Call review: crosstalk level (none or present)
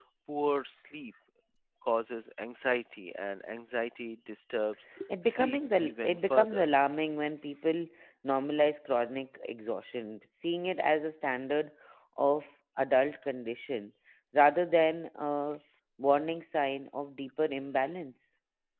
present